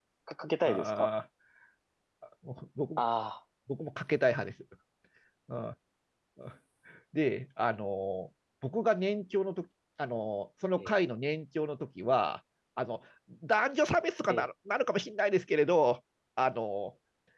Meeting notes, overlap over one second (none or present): none